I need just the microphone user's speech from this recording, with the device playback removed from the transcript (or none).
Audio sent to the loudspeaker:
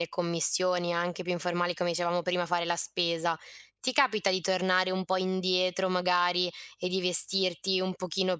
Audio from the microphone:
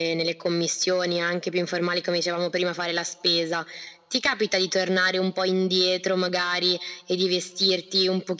none